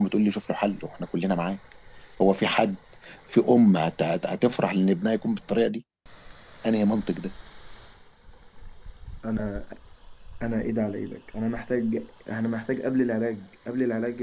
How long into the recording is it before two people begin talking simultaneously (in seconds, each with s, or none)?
none